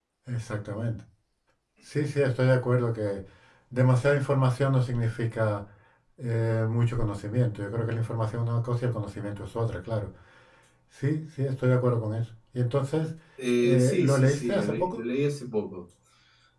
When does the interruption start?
14 s

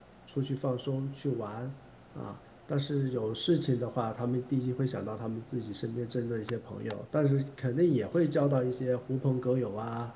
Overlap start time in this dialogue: none

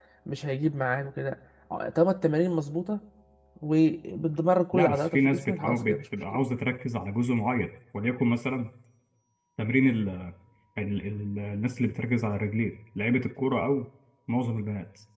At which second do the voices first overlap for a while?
5 s

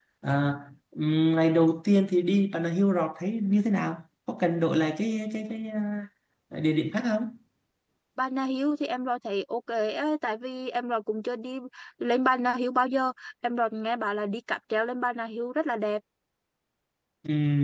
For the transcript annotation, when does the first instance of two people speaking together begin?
none

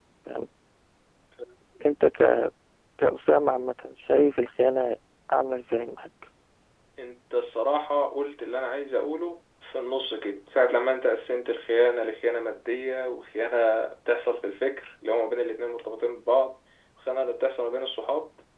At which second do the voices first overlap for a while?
none

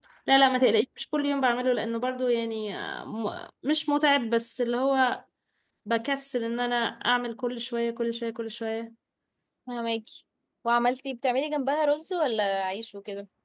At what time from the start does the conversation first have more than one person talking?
none

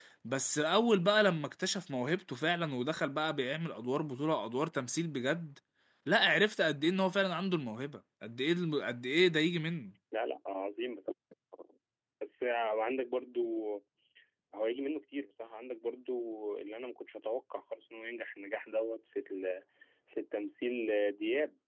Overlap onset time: none

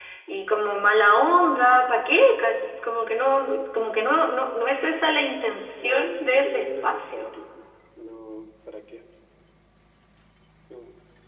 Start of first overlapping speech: 6 s

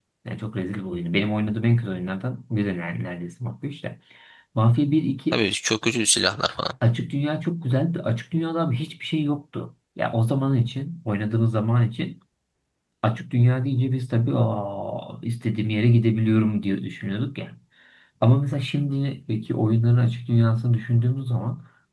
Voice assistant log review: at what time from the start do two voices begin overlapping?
none

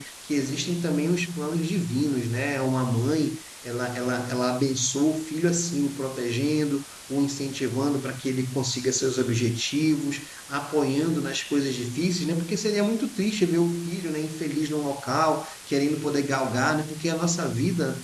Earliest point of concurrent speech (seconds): none

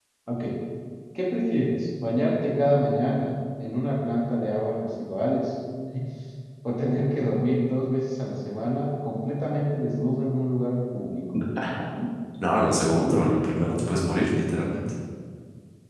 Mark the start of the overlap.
none

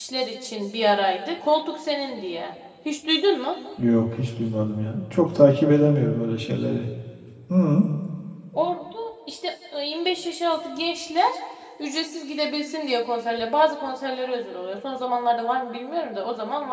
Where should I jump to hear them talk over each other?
none

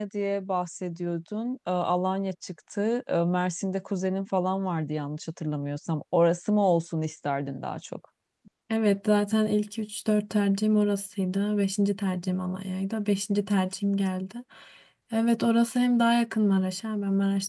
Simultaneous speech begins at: none

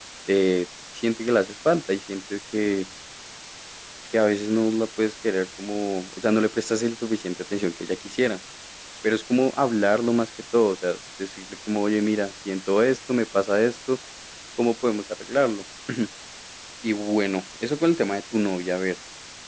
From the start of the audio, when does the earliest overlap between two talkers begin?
none

